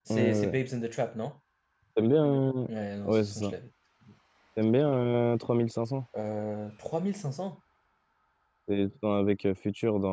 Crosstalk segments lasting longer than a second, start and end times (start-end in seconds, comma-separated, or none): none